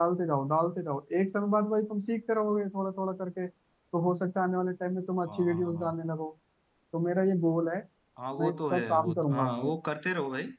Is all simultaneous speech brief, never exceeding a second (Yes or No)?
No